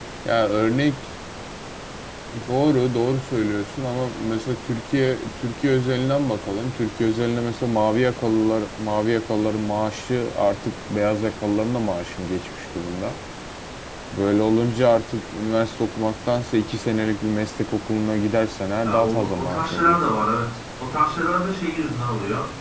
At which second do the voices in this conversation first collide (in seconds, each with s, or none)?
18.8 s